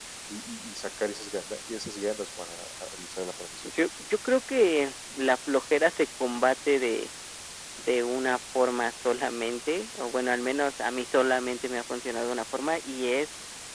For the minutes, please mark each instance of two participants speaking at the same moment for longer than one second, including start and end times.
none

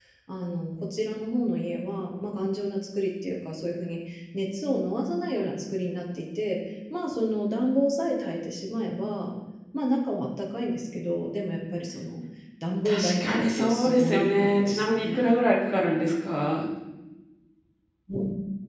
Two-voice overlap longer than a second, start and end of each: 12.8-15.2

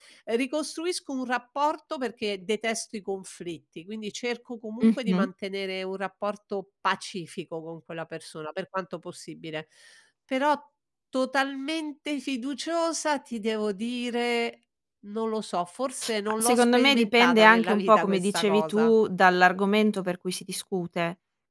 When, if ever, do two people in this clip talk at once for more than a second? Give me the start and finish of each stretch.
16.4-18.9

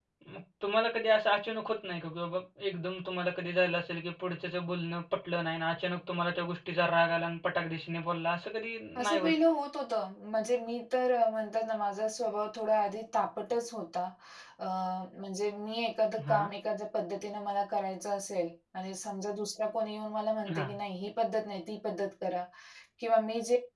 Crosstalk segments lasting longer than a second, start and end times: none

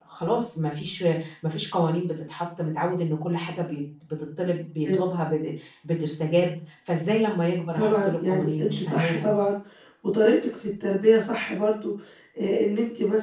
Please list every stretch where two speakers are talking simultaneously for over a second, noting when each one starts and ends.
7.8-9.4

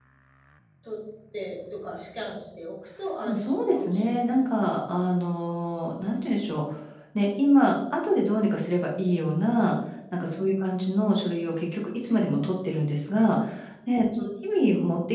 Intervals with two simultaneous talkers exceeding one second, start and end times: 3.2-4.5

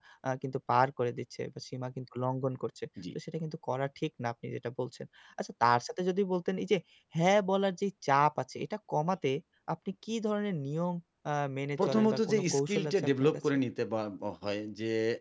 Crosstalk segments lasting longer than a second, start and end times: 11.8-13.5

